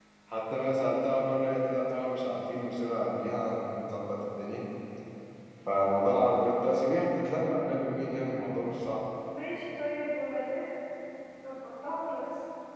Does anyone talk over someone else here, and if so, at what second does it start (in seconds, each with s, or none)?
none